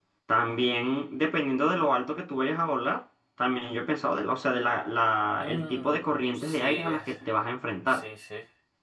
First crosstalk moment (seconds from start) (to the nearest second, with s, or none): 5 s